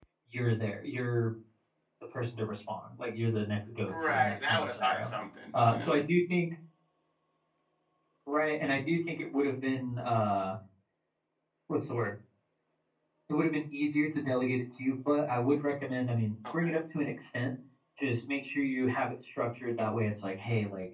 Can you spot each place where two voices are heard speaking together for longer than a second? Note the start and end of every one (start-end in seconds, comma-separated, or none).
3.9-5.1